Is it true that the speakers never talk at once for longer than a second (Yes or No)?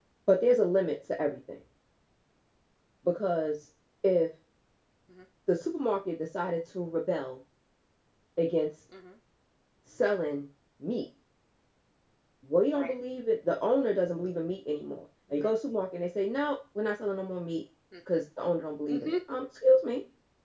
Yes